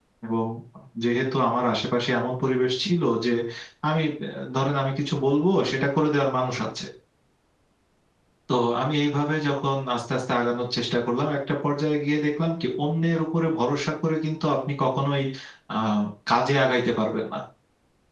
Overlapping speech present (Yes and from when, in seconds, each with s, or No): No